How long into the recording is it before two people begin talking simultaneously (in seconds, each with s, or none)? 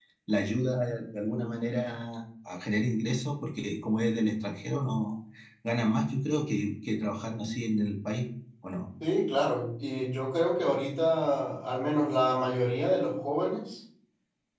none